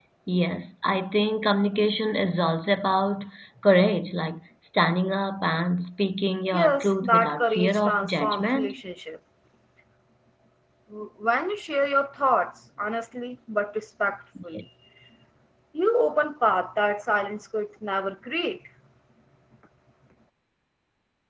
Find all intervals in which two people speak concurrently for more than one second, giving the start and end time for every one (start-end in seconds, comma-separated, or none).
6.5-8.7